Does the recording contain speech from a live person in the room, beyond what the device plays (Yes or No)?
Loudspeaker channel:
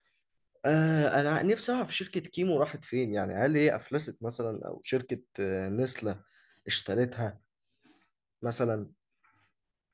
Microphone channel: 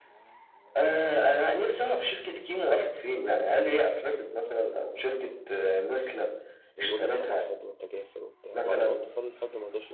Yes